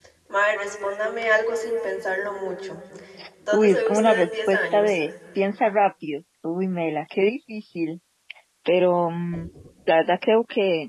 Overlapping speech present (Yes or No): Yes